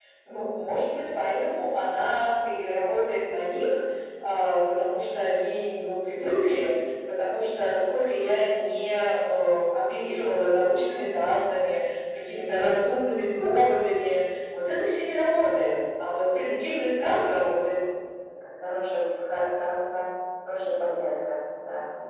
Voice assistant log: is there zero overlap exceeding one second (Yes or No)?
Yes